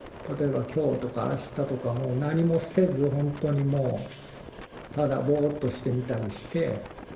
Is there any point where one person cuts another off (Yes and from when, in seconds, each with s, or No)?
No